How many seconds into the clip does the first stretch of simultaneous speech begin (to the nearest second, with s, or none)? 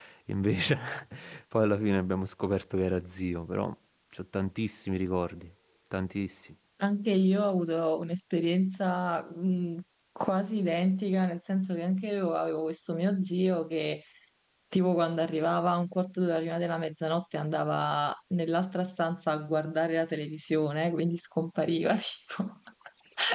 none